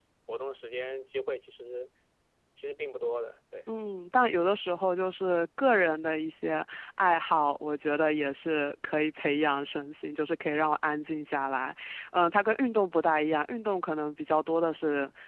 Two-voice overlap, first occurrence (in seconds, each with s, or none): none